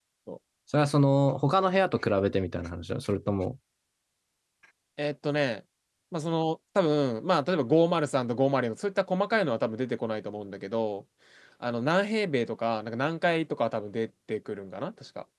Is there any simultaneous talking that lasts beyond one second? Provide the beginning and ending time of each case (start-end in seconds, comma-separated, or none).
none